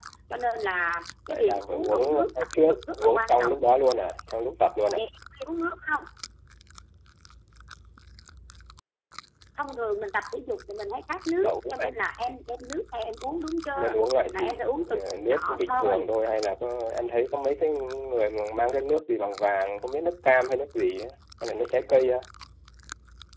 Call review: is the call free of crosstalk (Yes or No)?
No